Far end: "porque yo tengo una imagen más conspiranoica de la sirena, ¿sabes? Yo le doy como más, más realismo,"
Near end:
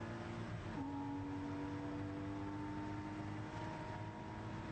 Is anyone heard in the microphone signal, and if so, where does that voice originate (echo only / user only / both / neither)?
neither